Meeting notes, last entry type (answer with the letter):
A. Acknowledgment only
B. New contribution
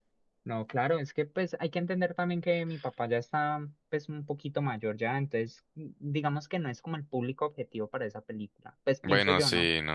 B